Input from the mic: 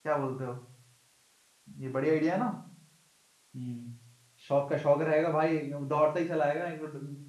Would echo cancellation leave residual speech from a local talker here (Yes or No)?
Yes